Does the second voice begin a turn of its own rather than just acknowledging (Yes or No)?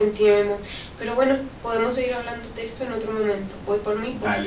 Yes